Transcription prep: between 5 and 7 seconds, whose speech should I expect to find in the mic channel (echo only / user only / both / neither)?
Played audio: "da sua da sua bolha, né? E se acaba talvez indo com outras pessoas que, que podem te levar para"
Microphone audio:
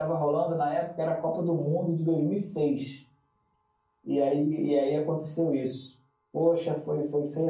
user only